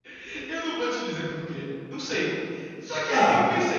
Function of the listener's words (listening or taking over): listening